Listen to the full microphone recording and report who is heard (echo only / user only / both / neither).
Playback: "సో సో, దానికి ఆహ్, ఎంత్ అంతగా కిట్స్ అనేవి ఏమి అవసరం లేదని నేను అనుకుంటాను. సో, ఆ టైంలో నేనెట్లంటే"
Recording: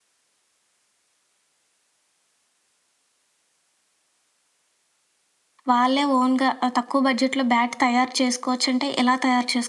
user only